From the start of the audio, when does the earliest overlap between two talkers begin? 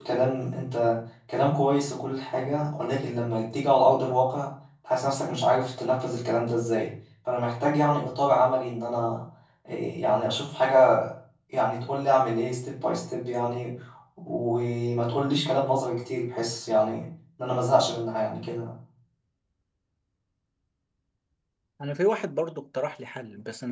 none

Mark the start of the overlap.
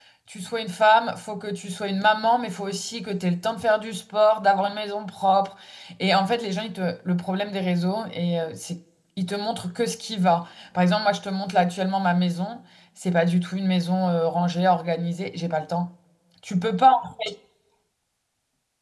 none

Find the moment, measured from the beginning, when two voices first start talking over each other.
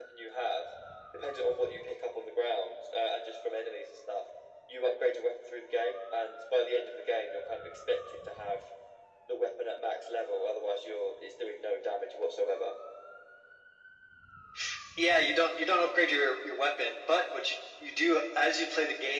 none

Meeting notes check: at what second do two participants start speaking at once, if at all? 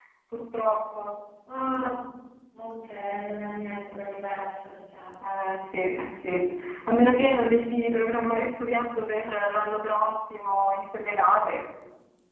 none

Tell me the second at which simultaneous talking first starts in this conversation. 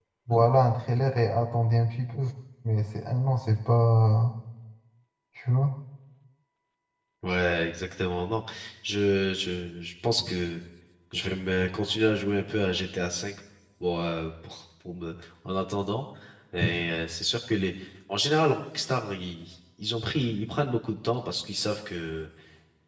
none

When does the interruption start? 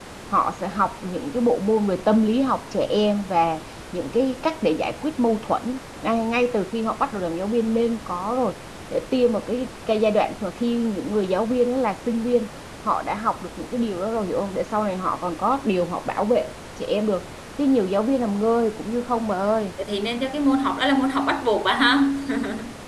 none

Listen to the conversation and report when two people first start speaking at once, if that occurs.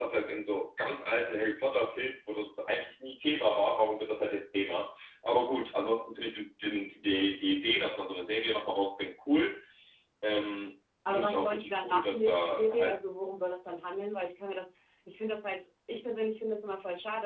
11.1 s

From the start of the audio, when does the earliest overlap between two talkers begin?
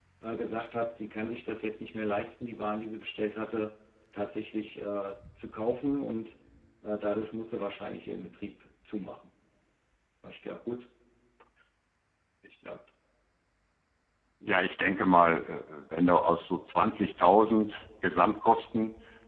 none

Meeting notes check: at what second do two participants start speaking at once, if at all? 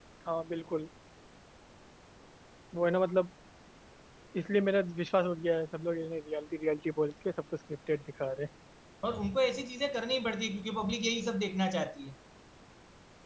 none

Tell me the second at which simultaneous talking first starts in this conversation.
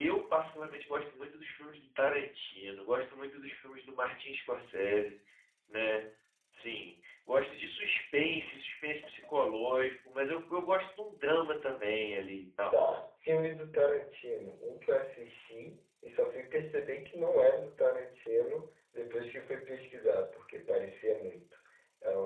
none

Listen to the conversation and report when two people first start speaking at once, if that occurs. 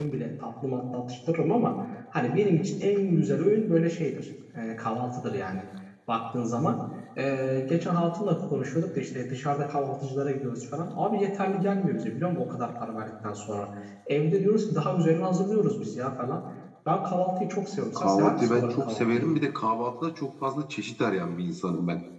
17.8 s

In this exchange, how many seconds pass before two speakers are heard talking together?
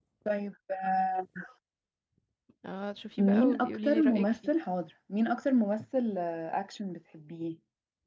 3.2 s

